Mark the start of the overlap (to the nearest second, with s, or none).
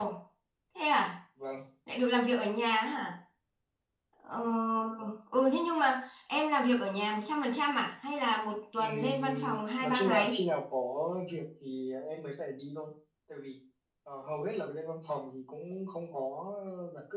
9 s